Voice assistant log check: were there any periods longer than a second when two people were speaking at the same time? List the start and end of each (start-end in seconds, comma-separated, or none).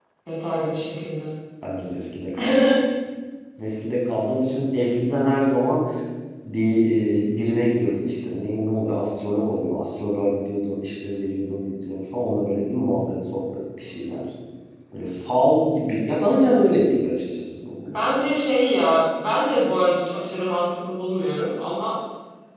none